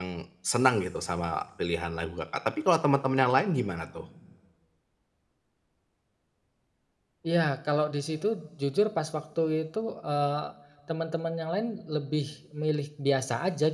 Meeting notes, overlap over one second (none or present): none